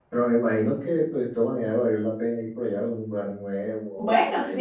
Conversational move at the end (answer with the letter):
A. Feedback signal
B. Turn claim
B